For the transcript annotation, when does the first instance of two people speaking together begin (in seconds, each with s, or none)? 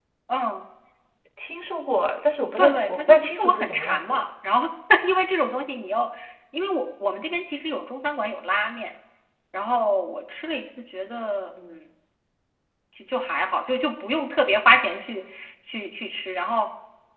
2.6 s